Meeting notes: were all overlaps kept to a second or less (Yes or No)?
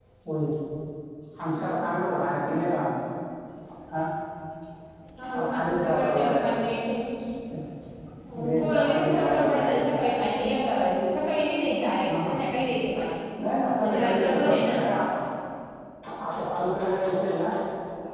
No